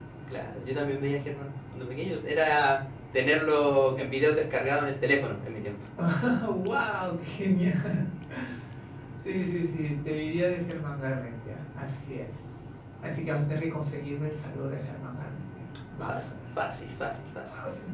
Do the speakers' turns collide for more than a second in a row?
No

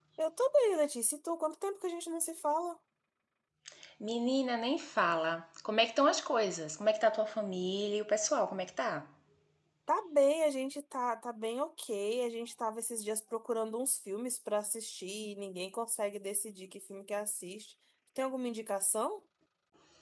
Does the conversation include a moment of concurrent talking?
No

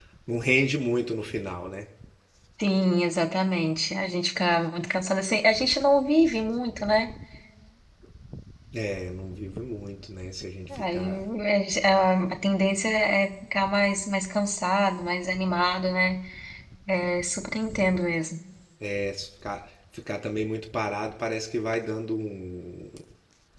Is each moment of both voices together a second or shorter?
Yes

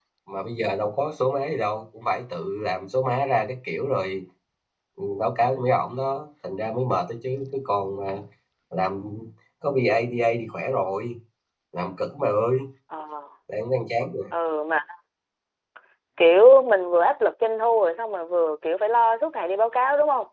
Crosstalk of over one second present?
No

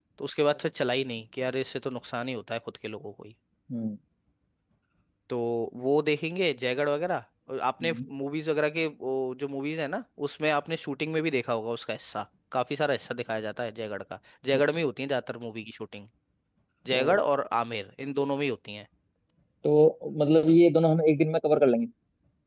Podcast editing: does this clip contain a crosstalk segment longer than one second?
No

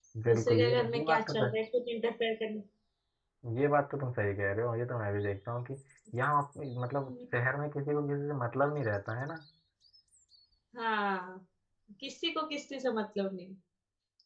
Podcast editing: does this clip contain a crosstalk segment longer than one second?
Yes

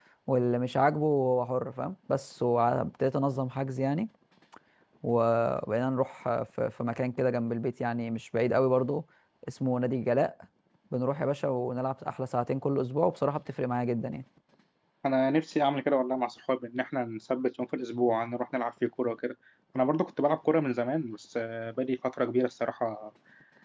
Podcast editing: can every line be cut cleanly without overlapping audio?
Yes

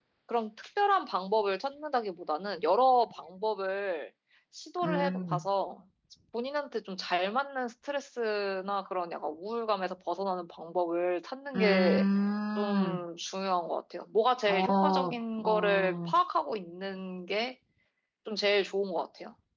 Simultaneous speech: Yes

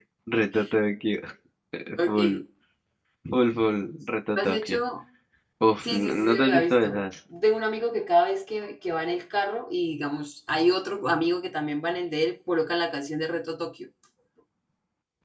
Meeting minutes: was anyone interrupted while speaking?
Yes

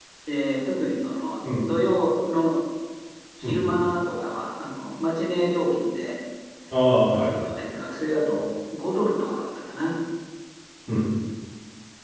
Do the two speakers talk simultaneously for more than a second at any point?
No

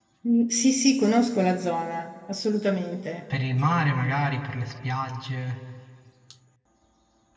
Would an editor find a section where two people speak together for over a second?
No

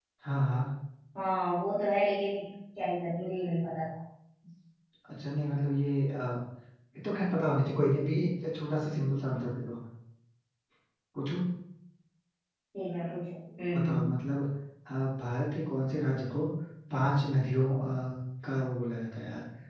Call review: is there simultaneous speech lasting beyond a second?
No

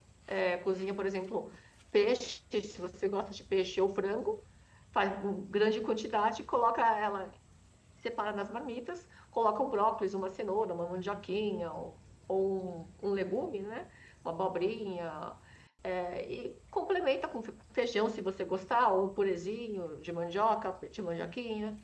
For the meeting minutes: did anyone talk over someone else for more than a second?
No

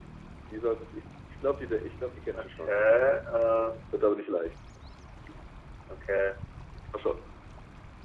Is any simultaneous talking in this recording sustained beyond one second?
No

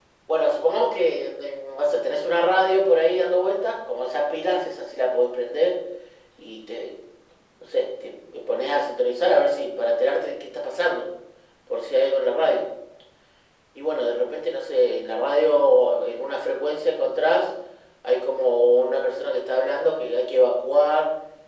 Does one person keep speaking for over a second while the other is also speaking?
No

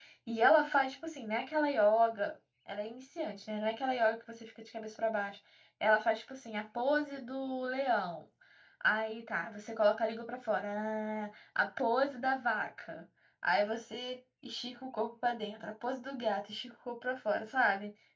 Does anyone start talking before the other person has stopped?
No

